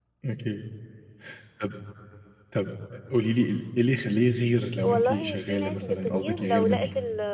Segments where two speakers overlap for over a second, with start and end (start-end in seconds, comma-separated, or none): 4.8-6.8